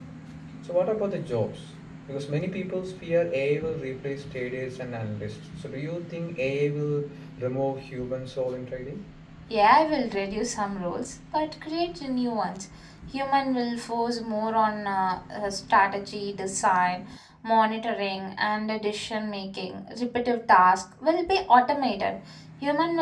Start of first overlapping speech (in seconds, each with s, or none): none